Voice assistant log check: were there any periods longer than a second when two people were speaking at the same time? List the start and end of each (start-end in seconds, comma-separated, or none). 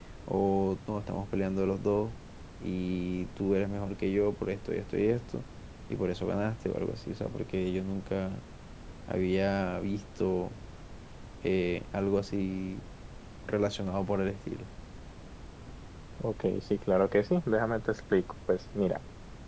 none